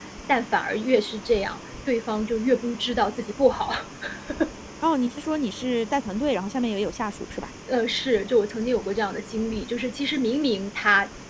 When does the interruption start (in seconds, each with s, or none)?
none